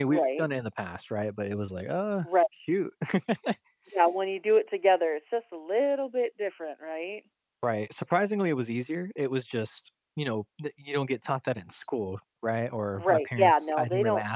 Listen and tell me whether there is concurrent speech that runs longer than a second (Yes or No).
Yes